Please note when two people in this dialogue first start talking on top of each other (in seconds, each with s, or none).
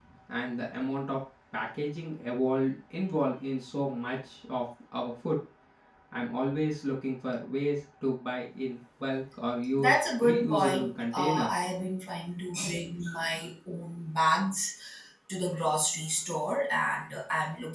9.8 s